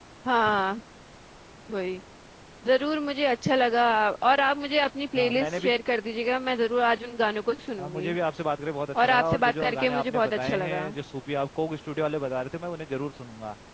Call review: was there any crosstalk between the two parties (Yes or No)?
Yes